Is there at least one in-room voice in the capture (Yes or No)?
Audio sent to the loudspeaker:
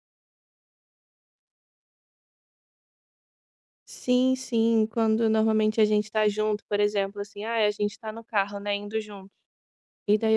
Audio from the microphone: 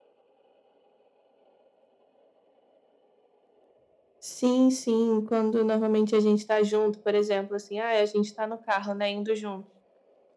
No